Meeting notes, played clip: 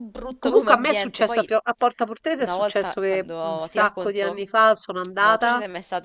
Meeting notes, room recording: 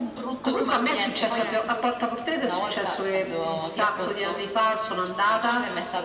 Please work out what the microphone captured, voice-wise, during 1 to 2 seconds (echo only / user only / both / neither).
both